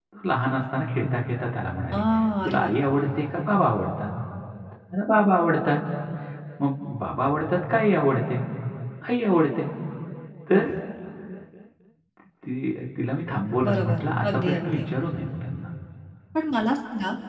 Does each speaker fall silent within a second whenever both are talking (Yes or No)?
No